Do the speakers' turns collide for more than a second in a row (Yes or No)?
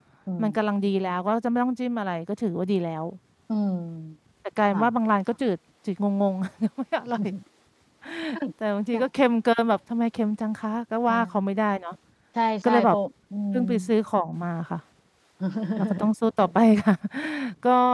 No